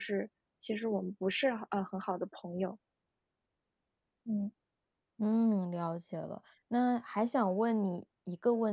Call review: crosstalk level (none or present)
none